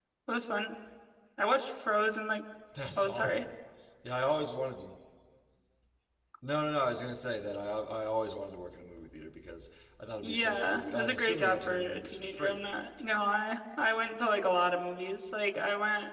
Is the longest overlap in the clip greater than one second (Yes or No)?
Yes